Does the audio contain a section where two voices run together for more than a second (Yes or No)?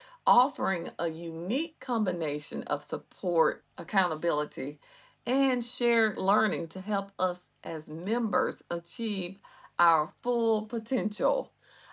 No